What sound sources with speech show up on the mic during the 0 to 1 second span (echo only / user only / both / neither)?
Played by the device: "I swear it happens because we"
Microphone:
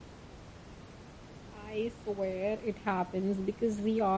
neither